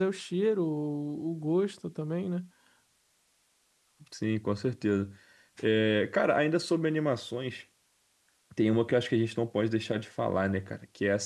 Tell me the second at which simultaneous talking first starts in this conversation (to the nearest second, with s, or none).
none